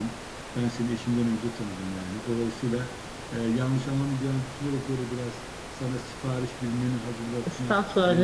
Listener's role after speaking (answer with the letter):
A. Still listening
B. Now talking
B